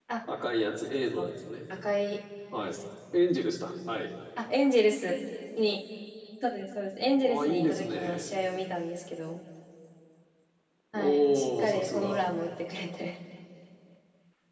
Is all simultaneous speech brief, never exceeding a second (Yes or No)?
No